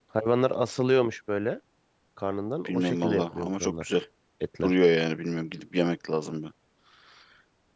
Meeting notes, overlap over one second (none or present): present